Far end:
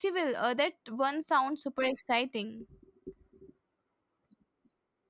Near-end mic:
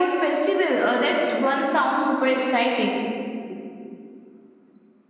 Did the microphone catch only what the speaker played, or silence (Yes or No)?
Yes